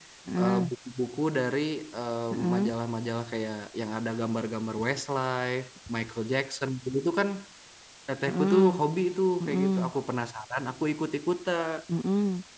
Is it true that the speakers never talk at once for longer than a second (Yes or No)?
Yes